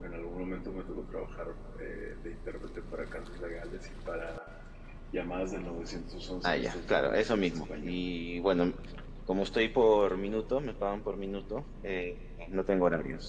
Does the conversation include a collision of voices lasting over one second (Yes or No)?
Yes